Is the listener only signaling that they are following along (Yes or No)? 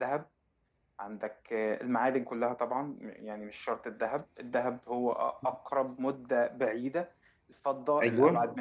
Yes